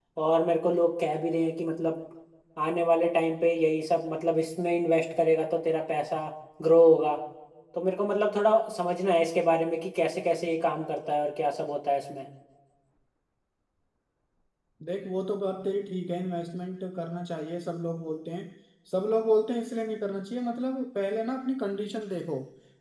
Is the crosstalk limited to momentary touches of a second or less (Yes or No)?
Yes